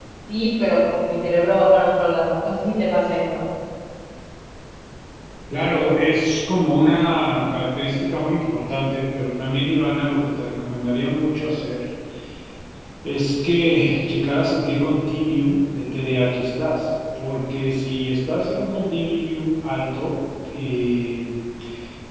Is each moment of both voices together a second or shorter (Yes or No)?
Yes